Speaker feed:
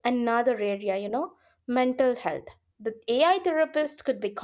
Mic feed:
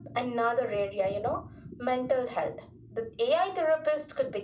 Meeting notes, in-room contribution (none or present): none